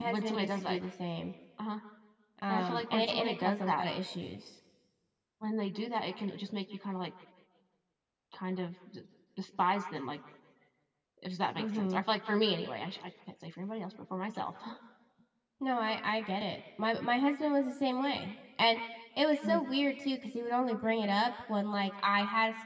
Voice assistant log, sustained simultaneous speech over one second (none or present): present